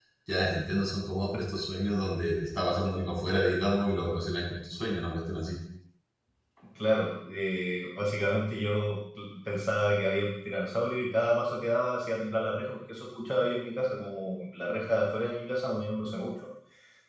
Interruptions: none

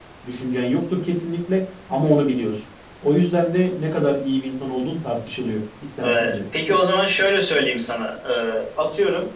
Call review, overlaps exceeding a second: none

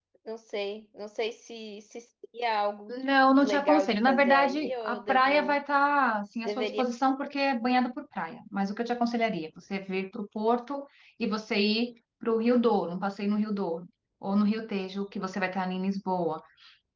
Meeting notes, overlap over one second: present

